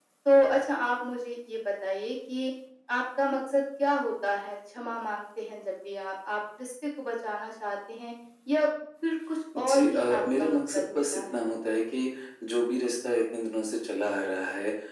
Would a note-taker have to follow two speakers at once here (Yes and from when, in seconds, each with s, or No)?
Yes, from 9.5 s